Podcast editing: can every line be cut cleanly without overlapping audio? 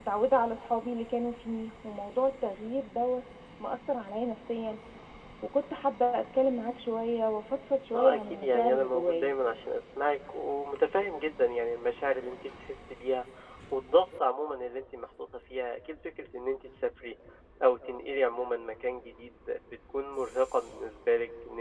No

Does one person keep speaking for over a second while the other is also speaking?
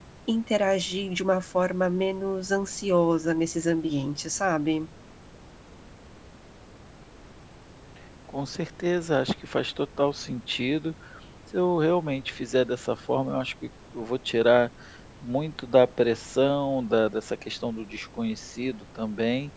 No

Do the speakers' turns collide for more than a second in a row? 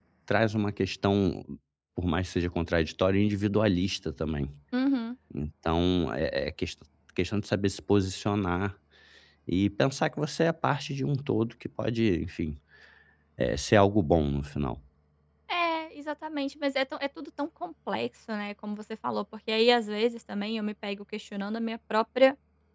No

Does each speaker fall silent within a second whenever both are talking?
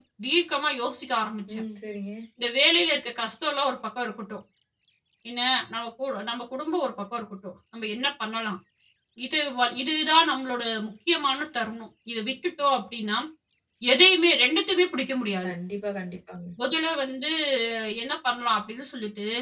Yes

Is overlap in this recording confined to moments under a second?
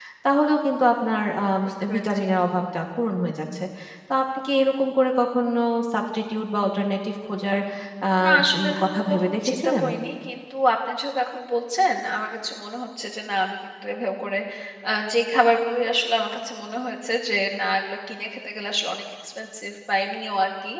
No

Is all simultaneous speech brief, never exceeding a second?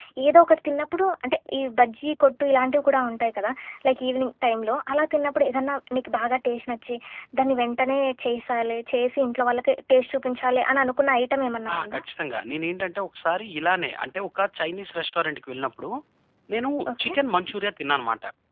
Yes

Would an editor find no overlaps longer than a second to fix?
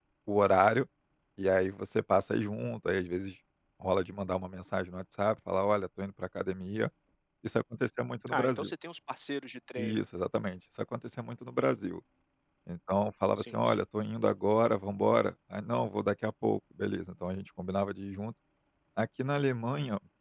Yes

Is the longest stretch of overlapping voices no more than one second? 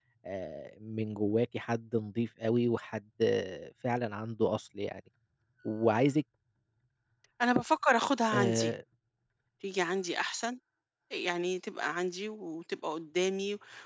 Yes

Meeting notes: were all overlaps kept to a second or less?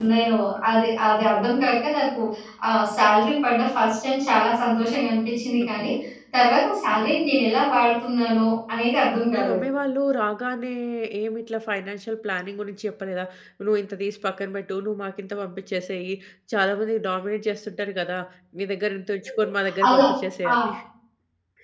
Yes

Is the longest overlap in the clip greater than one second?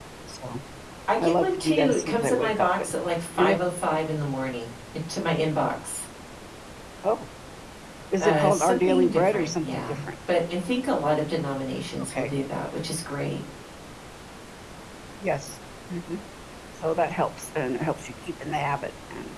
Yes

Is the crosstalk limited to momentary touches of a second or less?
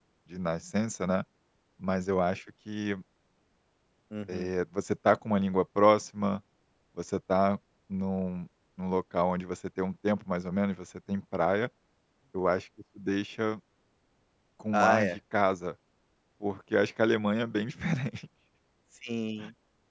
Yes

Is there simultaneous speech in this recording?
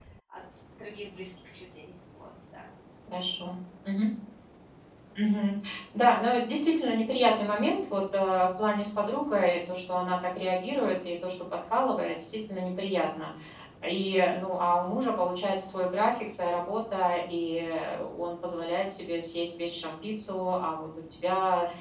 No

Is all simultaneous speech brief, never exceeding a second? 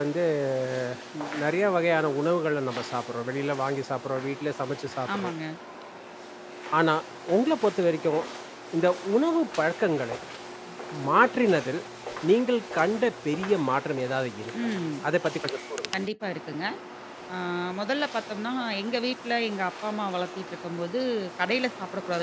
Yes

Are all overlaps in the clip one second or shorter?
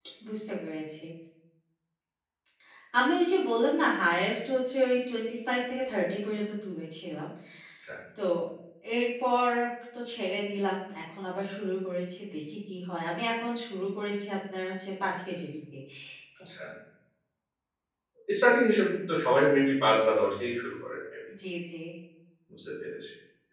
Yes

